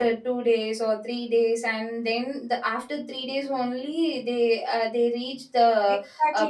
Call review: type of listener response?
taking over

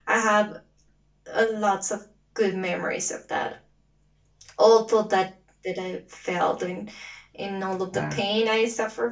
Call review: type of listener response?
listening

